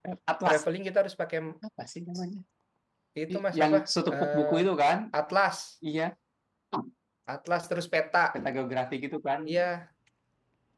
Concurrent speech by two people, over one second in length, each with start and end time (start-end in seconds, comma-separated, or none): 3.3-4.6